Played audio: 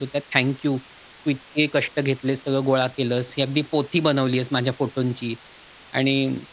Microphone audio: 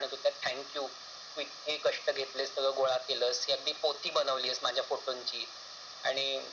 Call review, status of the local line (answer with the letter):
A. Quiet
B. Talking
A